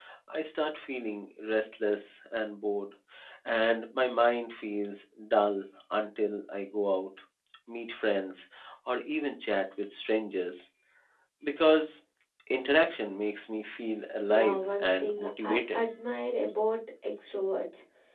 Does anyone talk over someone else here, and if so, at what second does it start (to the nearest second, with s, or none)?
14 s